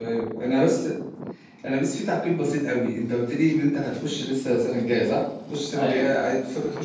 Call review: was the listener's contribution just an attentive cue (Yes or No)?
Yes